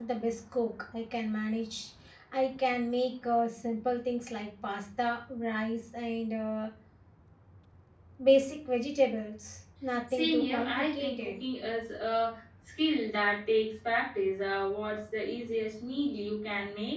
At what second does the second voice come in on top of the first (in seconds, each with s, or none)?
10.1 s